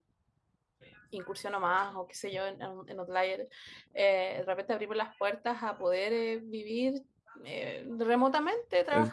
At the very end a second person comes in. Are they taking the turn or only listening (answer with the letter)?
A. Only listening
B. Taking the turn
A